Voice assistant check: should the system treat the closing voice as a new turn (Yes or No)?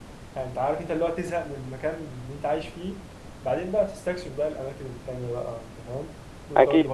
Yes